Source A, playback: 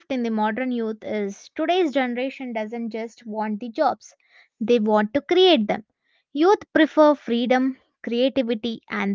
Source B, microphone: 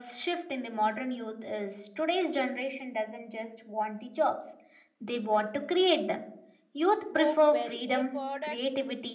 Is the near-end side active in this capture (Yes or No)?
Yes